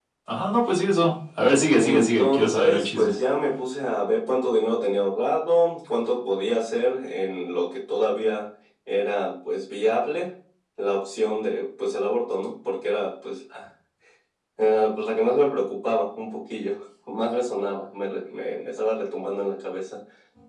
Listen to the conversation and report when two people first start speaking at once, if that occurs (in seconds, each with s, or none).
1.8 s